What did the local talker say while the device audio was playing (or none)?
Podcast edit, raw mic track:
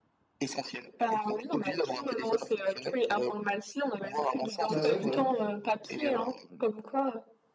bah ouais, voilà.